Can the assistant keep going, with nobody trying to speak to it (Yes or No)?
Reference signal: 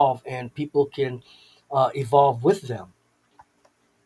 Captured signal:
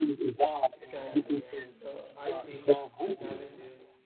No